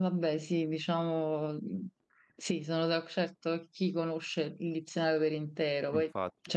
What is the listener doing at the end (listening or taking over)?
listening